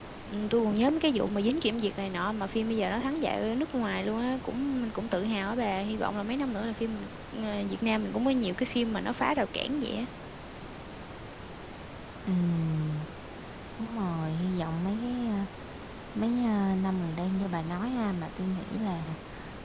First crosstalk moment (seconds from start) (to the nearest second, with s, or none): none